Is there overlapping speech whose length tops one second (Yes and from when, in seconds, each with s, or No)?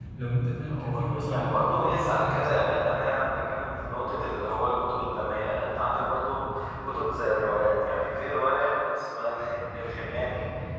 Yes, from 0.7 s